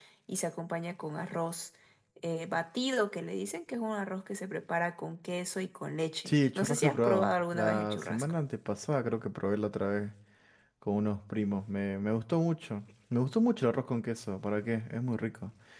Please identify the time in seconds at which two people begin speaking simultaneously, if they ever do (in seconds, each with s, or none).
6.2 s